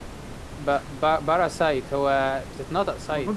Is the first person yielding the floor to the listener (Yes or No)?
Yes